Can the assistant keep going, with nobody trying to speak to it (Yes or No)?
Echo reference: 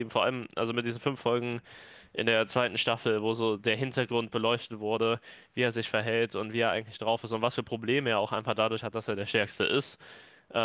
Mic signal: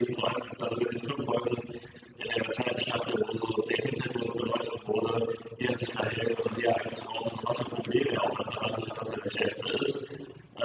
Yes